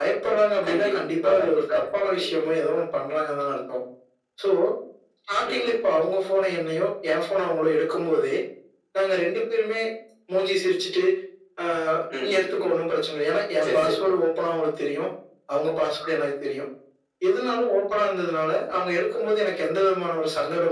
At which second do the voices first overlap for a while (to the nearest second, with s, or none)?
1 s